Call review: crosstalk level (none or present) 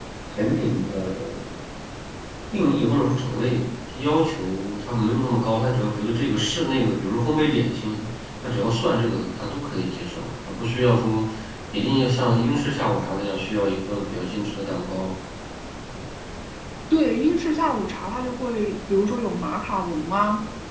none